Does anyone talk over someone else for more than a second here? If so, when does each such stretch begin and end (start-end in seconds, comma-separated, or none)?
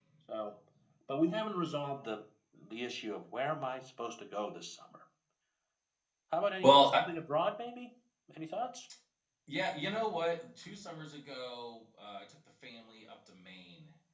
none